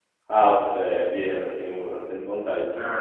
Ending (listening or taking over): taking over